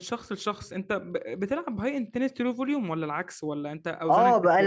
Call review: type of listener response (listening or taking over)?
taking over